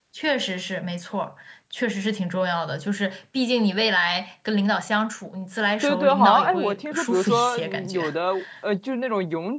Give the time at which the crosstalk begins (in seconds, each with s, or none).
5.8 s